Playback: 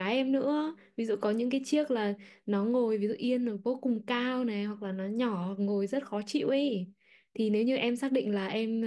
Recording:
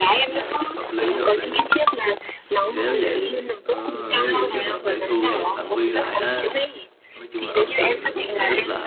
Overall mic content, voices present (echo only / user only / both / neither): both